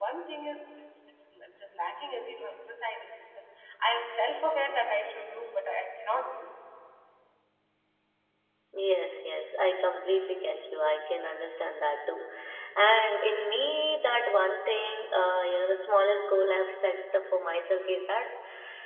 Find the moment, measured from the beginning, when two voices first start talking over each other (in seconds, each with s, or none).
none